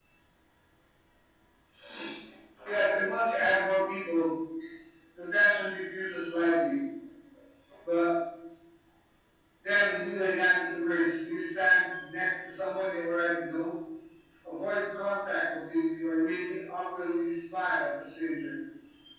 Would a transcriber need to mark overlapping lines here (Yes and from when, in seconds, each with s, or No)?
No